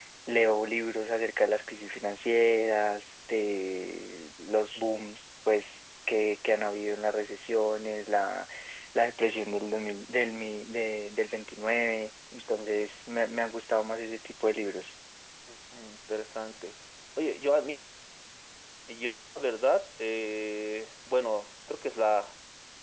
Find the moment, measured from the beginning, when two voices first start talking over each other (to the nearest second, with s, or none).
none